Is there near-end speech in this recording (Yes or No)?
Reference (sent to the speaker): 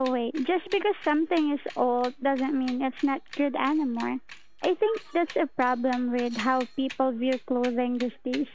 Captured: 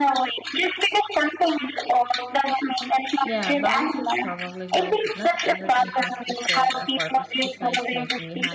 Yes